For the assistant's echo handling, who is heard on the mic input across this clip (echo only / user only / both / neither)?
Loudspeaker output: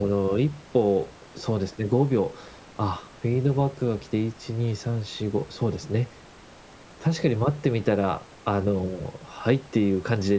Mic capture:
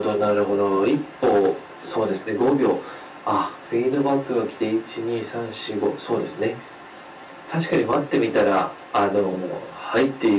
echo only